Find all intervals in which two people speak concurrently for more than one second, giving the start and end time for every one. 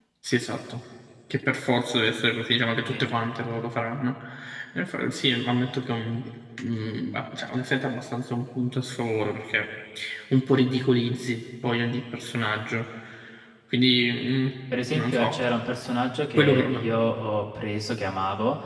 none

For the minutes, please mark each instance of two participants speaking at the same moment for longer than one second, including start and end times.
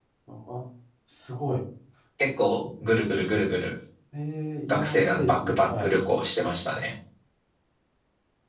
4.7-6.0

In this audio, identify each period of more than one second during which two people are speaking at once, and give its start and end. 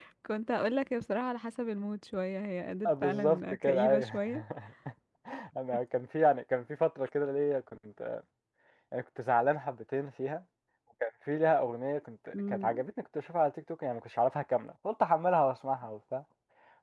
2.9-4.2

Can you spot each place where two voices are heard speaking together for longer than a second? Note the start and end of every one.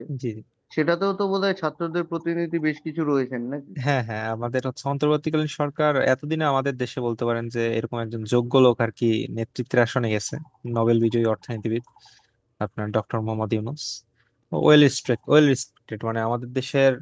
none

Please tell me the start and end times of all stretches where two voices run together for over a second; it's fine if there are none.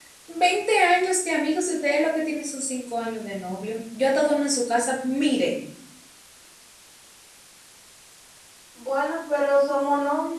none

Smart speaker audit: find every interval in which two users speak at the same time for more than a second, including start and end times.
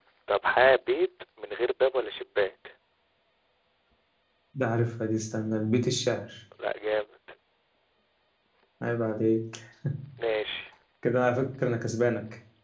none

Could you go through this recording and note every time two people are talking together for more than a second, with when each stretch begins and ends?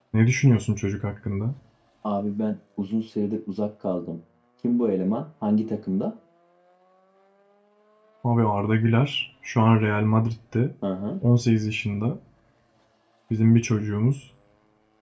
none

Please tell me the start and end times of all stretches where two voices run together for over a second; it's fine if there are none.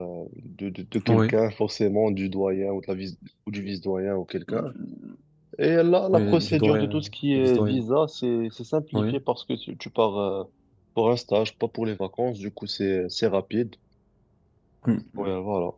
6.1-7.8

